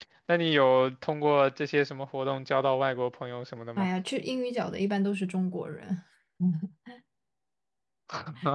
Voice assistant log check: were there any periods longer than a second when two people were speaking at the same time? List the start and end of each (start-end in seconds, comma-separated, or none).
none